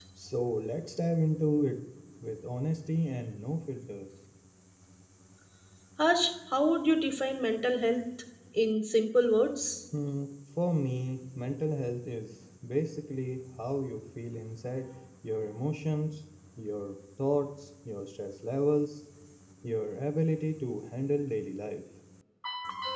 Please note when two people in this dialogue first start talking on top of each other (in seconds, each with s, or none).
none